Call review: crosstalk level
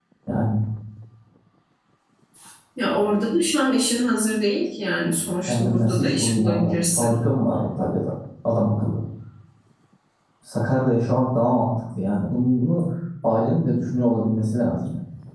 present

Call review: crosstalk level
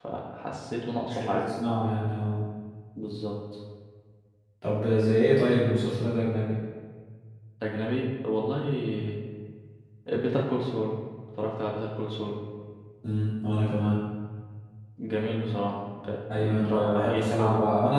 present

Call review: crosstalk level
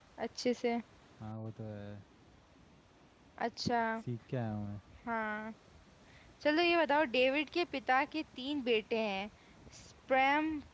none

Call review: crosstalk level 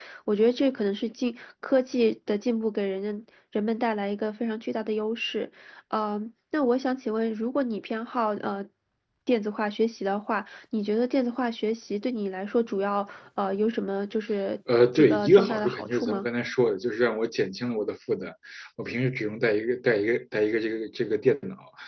present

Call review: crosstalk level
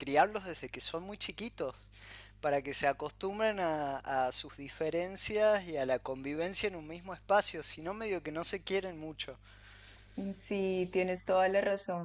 none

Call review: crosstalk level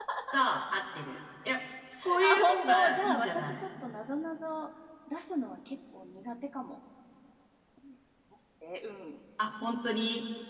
present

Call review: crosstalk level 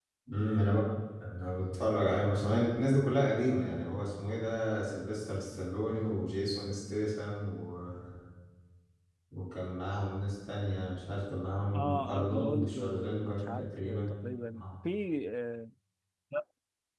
present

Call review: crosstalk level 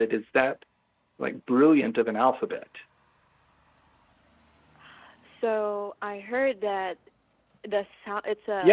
none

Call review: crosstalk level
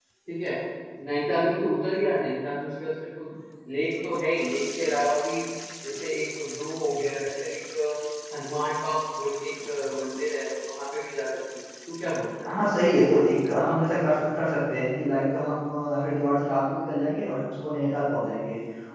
none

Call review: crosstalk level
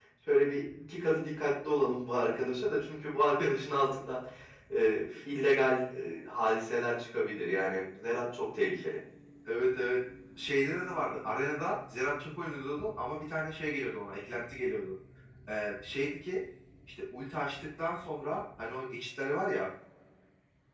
none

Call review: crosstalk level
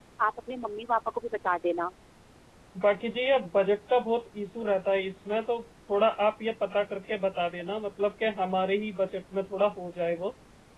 none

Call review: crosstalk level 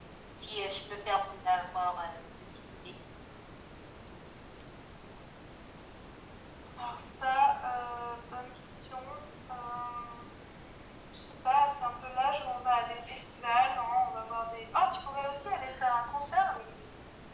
none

